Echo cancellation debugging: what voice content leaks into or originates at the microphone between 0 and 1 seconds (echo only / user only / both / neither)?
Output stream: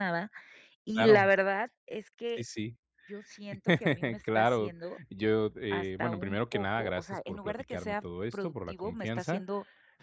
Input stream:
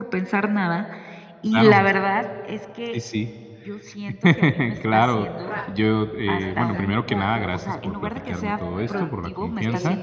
echo only